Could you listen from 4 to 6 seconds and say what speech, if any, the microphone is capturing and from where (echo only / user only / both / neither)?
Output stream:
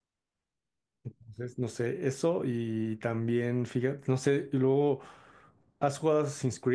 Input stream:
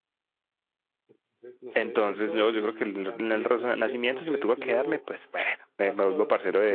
both